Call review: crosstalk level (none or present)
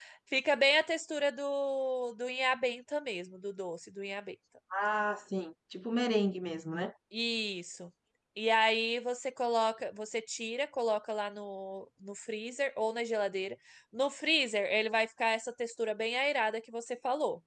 none